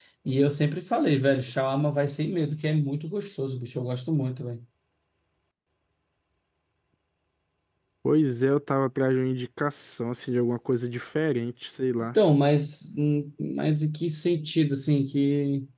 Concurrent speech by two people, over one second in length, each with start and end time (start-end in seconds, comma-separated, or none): none